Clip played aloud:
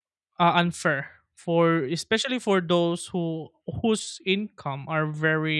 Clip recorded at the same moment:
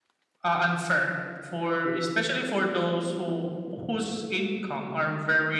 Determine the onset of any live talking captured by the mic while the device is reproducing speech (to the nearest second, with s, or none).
none